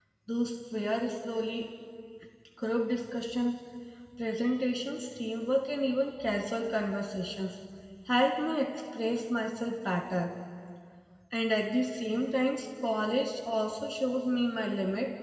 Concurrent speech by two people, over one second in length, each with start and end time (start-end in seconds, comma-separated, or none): none